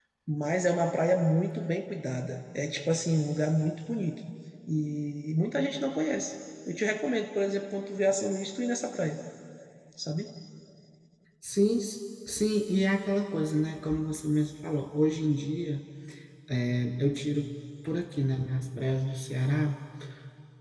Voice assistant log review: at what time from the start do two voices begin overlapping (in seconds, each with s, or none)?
none